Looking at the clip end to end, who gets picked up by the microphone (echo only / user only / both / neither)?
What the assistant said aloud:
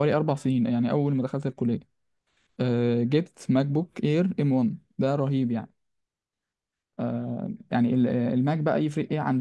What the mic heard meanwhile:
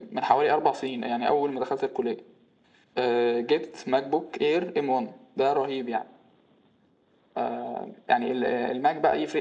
echo only